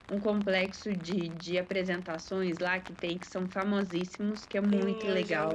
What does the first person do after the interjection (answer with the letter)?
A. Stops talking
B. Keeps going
A